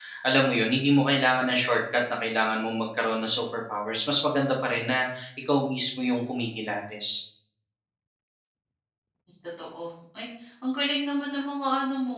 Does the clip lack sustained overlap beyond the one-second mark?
Yes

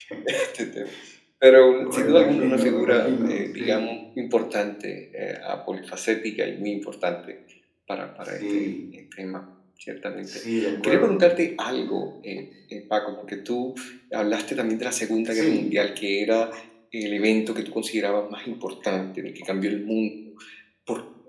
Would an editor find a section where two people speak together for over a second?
Yes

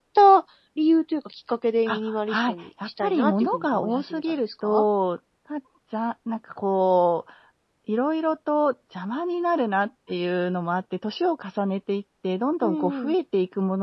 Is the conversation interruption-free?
No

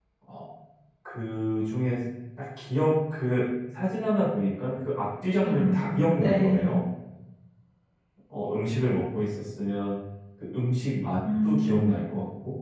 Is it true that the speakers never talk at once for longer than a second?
No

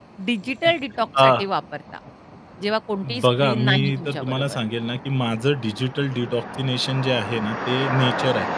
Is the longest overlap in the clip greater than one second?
Yes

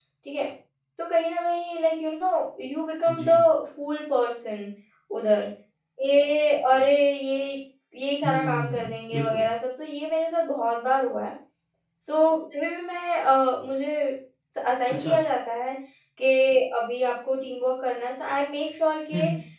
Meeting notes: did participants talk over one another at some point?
Yes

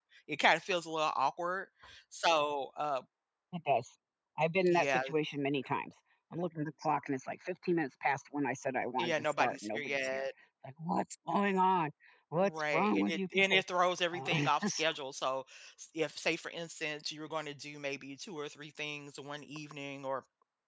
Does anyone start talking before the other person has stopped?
Yes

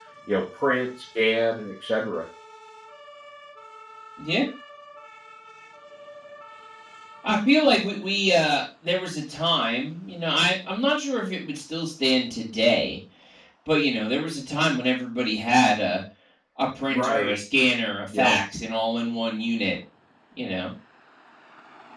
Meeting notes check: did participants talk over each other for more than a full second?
No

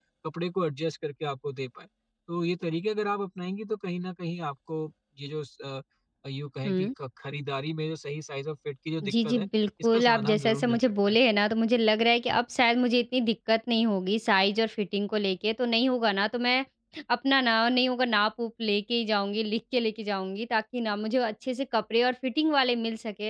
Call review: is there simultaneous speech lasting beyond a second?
Yes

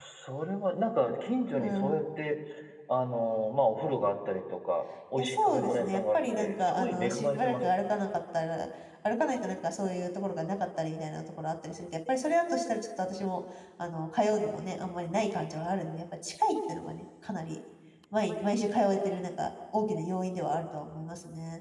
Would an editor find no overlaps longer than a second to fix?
No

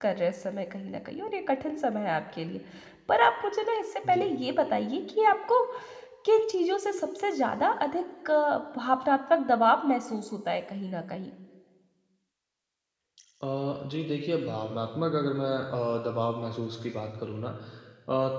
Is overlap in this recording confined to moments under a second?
Yes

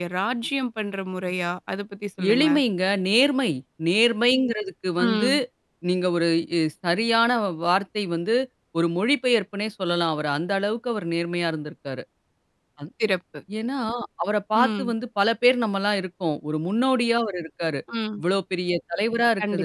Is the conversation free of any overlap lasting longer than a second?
Yes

